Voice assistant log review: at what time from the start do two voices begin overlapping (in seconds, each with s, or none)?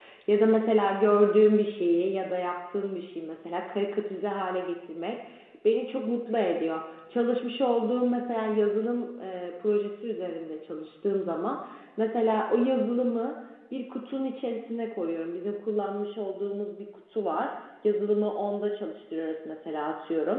none